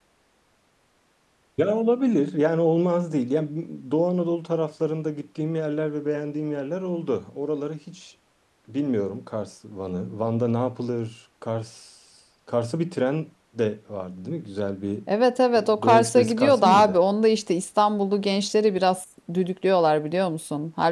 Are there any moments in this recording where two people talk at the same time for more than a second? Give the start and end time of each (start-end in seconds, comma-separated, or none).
15.6-17.0